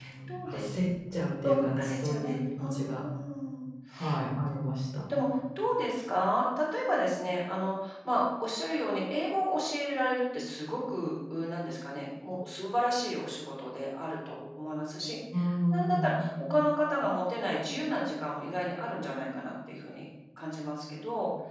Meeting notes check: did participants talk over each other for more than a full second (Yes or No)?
Yes